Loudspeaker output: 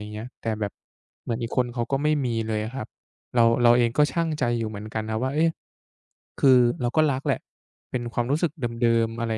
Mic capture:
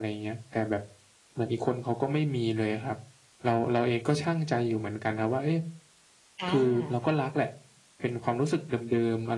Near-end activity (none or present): present